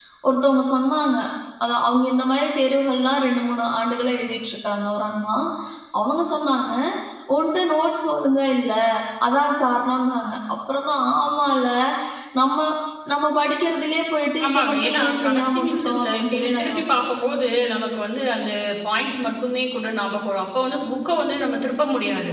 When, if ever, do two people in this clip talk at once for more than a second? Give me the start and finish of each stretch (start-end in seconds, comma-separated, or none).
14.4-17.1